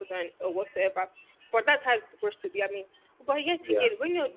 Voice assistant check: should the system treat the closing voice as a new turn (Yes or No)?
No